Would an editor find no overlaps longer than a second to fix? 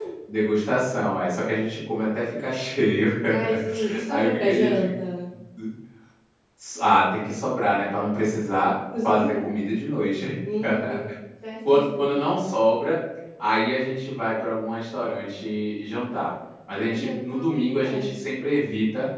No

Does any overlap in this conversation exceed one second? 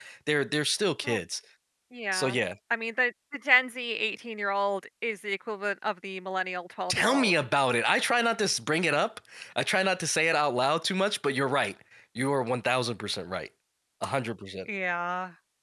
No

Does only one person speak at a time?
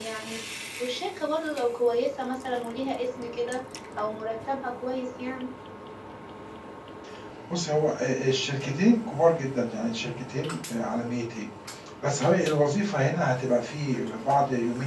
Yes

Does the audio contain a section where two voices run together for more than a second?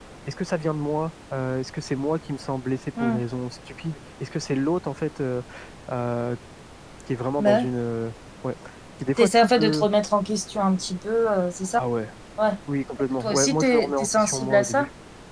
Yes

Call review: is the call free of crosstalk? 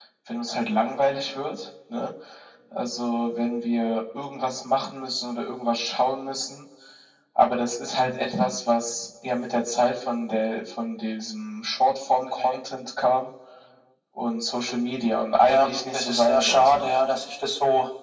No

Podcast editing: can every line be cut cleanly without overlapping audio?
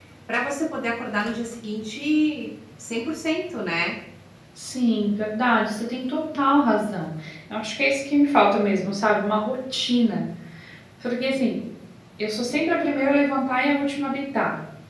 Yes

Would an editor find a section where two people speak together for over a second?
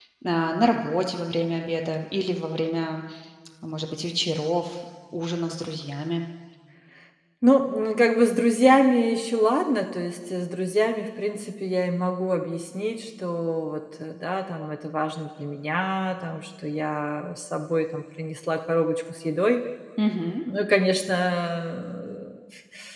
No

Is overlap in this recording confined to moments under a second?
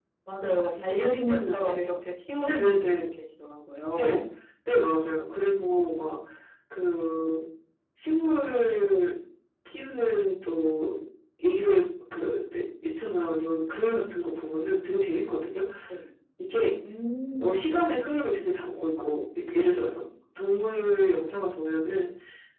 No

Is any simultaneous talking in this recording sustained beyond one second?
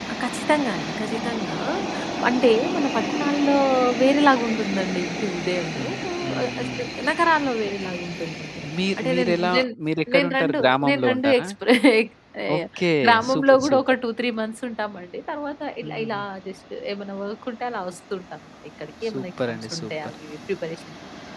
Yes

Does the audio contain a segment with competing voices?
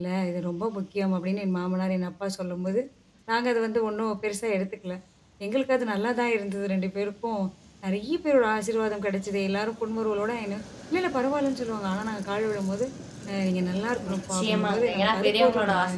Yes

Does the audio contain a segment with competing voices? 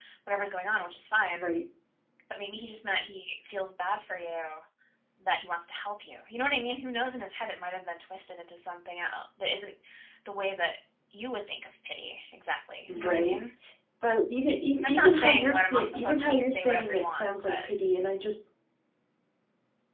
Yes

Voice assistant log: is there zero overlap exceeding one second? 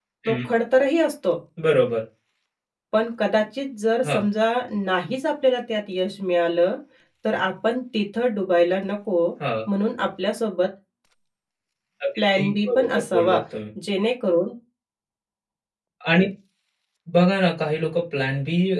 No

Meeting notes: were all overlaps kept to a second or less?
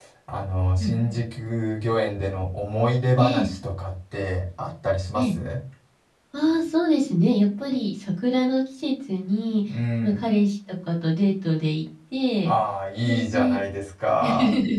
Yes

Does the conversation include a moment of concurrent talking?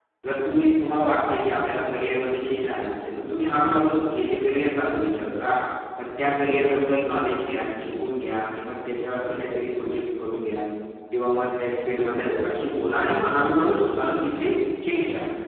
No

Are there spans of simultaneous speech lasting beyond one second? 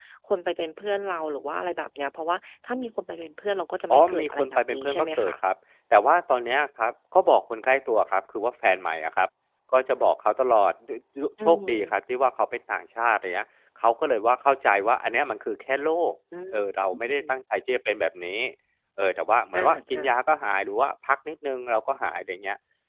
Yes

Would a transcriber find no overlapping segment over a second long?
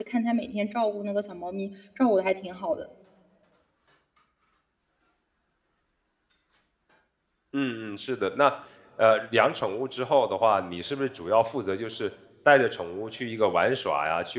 Yes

